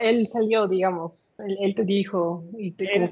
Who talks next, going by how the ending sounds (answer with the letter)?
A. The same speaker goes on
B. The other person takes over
B